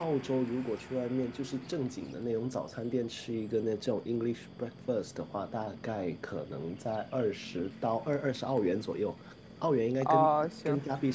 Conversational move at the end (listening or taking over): listening